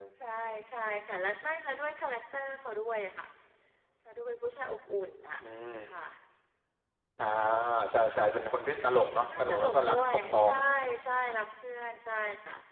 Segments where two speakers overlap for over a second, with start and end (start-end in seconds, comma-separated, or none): 9.2-10.6